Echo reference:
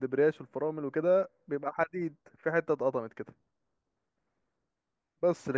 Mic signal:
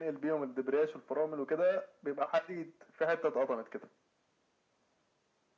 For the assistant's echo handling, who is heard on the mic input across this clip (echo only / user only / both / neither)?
echo only